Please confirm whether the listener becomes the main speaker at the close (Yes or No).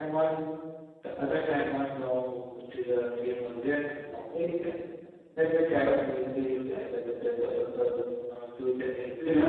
Yes